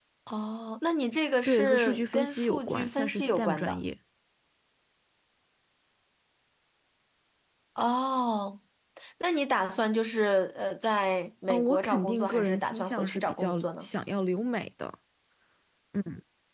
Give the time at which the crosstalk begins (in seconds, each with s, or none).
1.4 s